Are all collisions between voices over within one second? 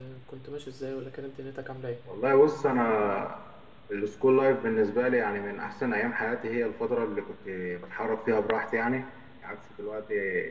Yes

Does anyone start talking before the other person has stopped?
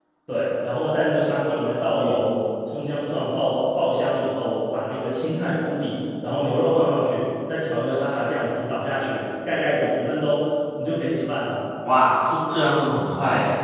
No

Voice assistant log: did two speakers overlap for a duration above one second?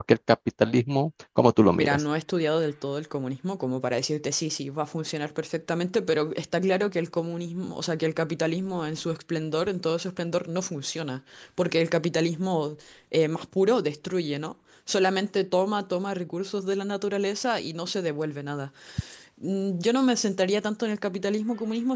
No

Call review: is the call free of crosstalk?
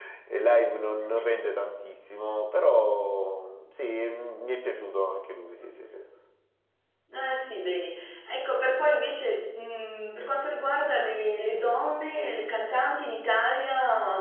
Yes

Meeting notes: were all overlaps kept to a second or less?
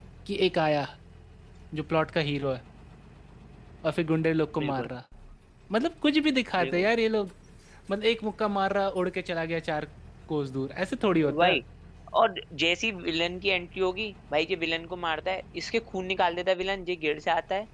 Yes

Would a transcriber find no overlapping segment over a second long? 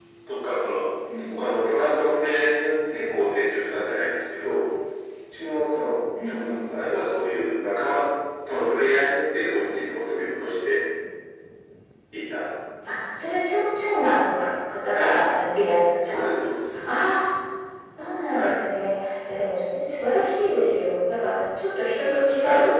Yes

